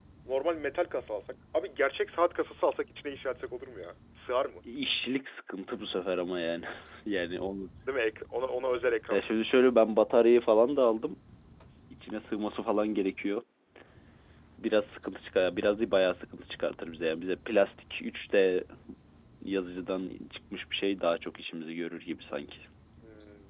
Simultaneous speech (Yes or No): No